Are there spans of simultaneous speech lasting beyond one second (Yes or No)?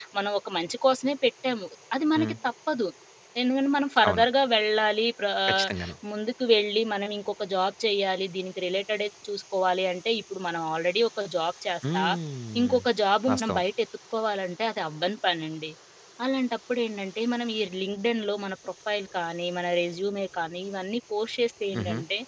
No